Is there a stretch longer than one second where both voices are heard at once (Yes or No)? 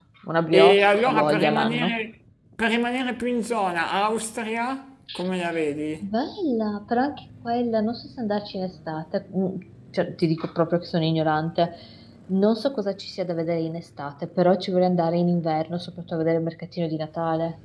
Yes